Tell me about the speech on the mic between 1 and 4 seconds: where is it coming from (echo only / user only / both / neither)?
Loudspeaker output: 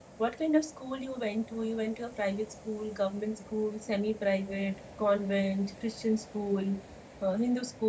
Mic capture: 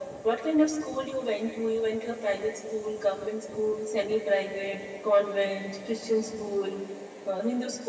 echo only